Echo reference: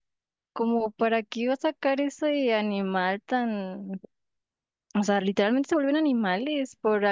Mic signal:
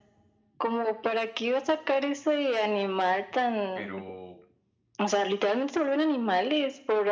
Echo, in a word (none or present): present